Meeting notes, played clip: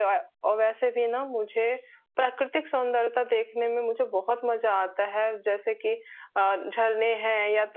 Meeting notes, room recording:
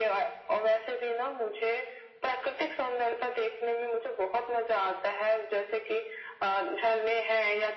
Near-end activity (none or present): none